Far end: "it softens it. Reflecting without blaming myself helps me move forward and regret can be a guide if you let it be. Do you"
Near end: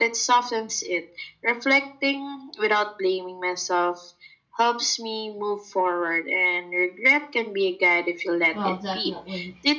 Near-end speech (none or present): present